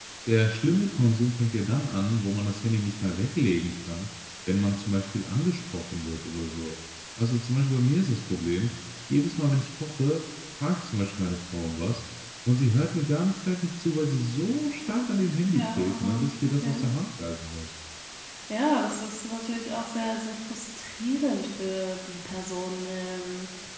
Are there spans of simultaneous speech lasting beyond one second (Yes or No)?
Yes